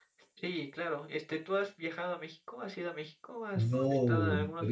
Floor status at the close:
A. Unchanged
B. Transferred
B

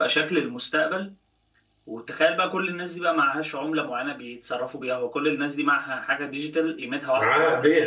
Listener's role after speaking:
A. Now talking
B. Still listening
A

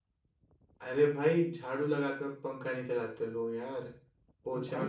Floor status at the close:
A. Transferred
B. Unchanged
A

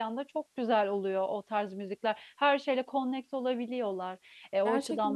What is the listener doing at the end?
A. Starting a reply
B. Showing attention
A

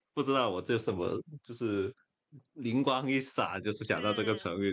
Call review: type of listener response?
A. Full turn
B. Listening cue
B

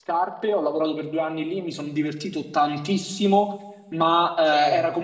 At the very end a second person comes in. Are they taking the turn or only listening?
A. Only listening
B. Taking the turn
A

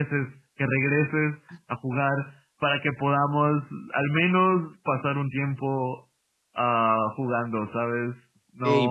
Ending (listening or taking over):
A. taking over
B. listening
A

